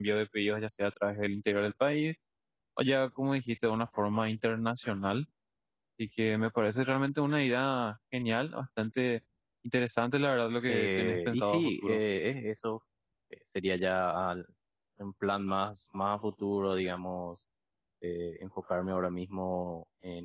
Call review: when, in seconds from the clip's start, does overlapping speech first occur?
10.7 s

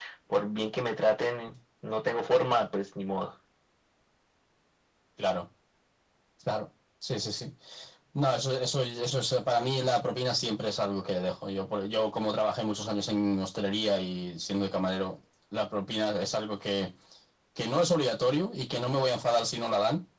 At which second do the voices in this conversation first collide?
none

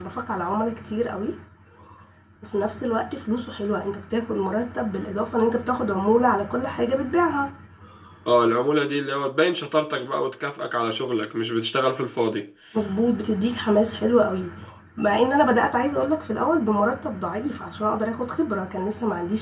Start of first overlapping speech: none

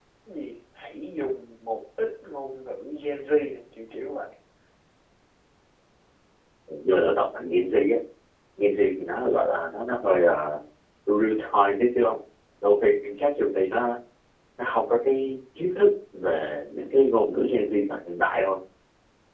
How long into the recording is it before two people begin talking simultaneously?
none

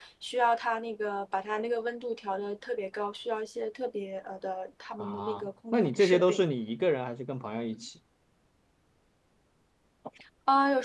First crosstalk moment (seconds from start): 5.0 s

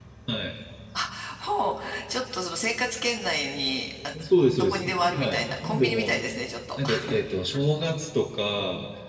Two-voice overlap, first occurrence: 4.5 s

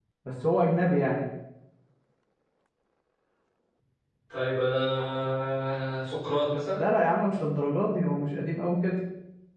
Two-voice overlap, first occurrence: none

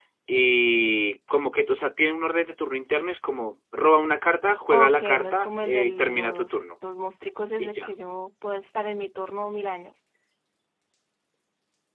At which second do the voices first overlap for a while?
4.7 s

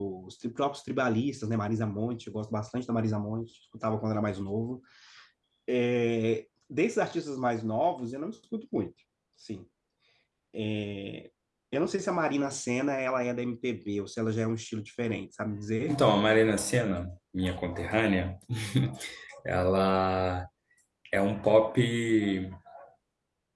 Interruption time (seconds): none

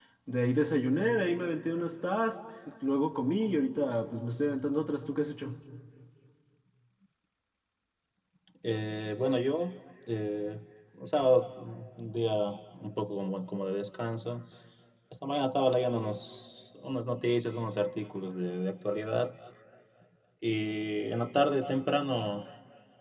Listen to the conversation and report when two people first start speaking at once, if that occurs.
none

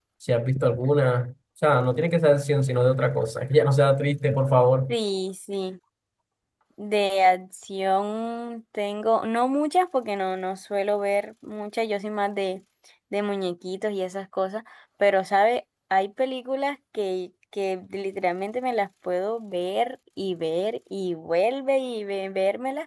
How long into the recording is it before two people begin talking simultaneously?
none

